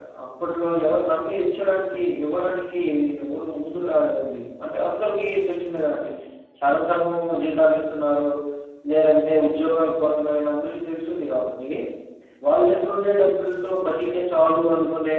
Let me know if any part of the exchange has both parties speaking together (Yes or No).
No